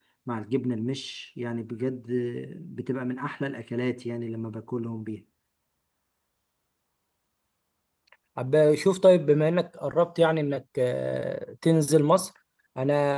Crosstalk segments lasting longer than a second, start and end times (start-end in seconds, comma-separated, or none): none